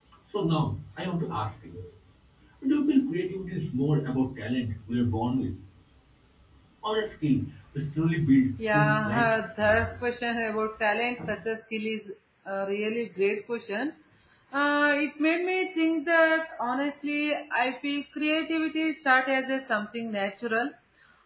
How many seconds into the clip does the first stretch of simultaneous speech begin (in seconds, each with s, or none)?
8.6 s